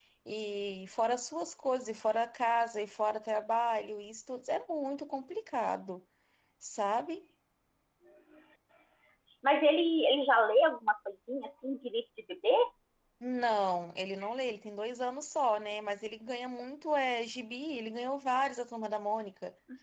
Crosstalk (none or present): none